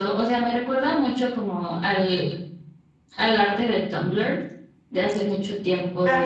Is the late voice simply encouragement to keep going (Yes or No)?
Yes